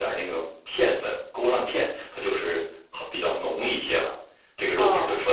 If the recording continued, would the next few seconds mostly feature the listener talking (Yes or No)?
Yes